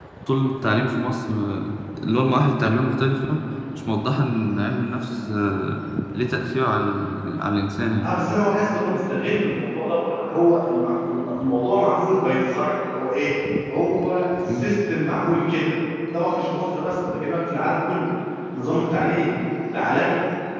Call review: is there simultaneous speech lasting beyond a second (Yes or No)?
No